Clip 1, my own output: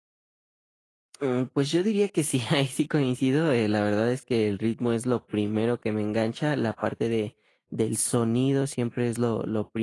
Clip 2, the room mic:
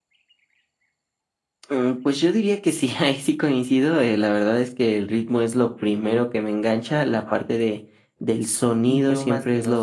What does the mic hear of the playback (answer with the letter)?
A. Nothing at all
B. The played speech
B